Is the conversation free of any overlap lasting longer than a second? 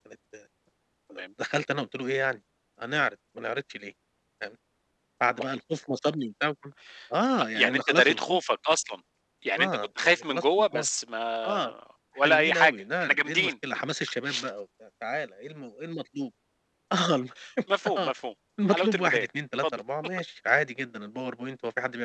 No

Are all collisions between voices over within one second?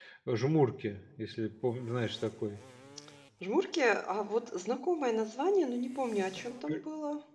Yes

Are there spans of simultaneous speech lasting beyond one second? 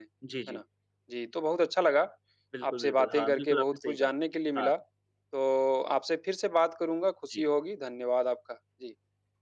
Yes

